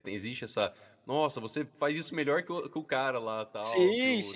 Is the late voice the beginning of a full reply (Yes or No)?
Yes